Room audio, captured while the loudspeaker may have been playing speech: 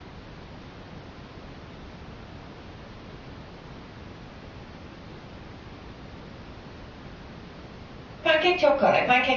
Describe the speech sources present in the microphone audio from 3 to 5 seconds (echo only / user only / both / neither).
neither